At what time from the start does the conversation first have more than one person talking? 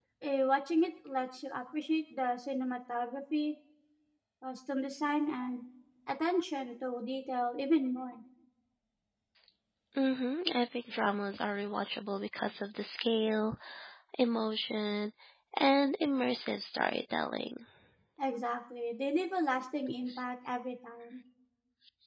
none

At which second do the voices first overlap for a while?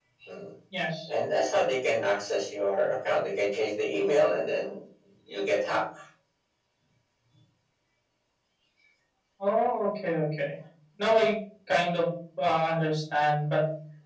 none

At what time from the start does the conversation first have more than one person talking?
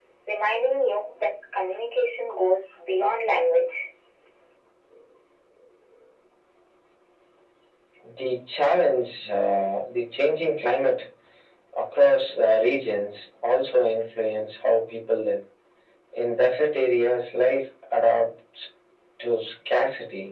none

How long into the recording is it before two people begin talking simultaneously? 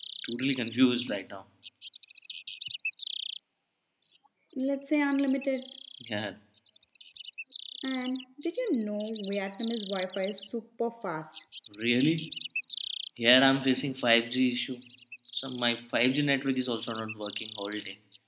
none

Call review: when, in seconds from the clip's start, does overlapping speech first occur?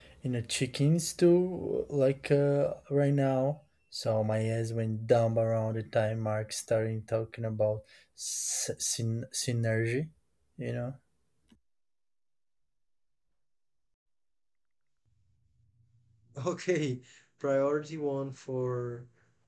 none

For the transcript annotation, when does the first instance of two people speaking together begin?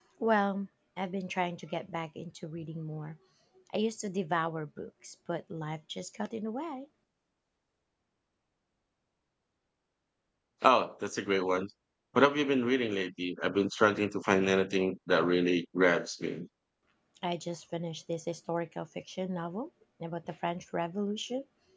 none

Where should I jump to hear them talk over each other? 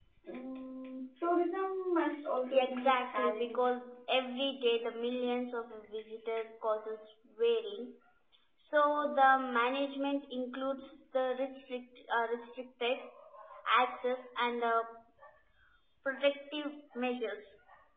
2.5 s

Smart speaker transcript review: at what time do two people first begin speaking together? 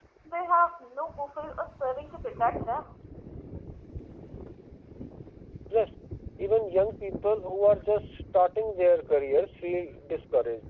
none

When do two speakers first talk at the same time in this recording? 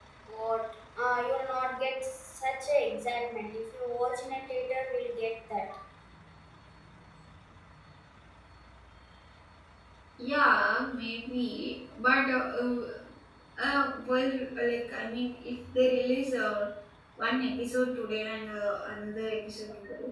none

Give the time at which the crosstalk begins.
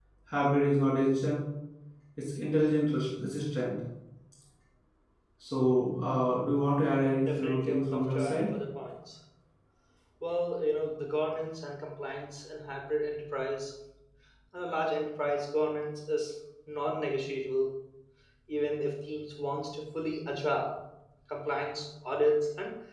7.1 s

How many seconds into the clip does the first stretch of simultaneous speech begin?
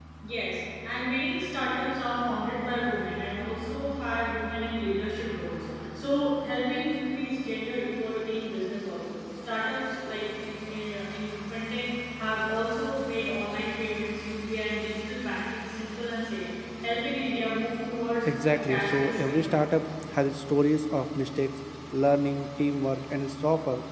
18.2 s

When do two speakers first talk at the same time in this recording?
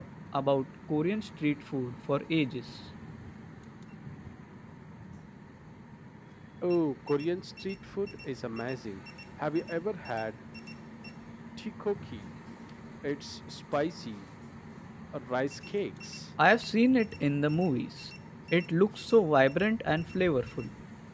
none

